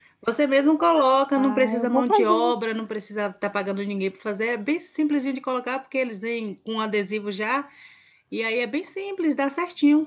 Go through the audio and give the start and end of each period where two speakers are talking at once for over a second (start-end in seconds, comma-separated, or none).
1.4-2.8